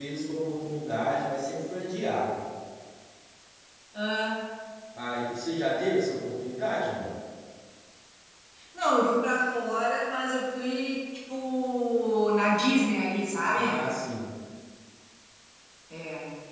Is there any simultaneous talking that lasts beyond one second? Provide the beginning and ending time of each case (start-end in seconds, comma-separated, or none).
none